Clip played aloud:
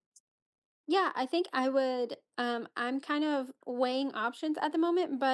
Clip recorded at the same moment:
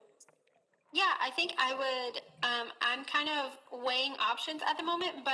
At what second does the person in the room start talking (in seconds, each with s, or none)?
none